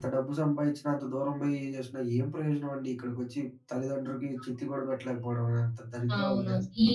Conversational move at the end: taking over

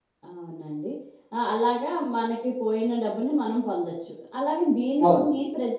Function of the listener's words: listening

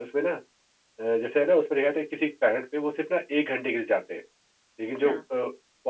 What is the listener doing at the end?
listening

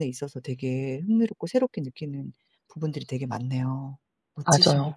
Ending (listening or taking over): taking over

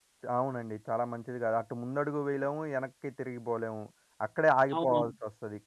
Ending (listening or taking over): listening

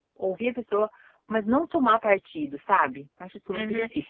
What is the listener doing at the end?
taking over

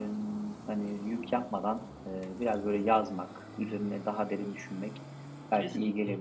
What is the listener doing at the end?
listening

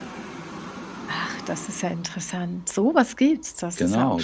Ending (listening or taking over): taking over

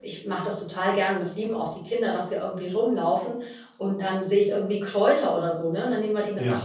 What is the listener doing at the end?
listening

